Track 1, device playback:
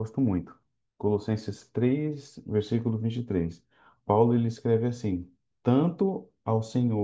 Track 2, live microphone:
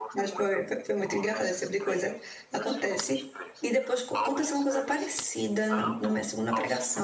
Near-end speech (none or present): present